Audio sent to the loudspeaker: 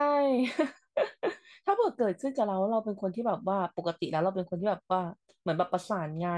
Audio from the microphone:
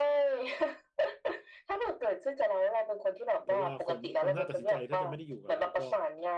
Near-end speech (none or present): present